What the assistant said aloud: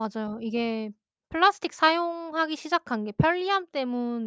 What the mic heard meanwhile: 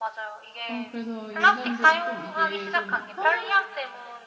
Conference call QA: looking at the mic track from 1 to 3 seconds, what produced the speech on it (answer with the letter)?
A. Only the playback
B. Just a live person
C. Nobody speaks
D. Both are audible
D